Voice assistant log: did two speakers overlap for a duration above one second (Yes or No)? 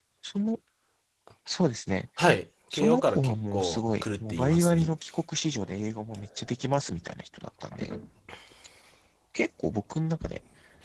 Yes